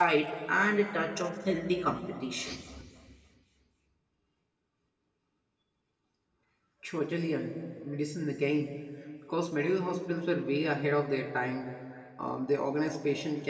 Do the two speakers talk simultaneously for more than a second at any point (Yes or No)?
No